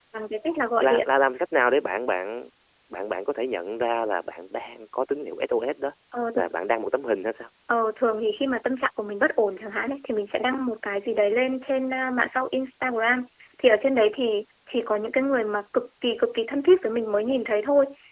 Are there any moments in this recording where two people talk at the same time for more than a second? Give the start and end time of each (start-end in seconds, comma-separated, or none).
none